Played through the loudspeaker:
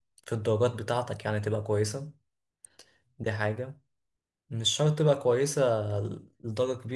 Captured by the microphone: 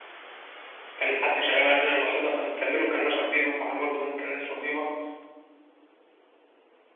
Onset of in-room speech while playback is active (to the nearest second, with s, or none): 1 s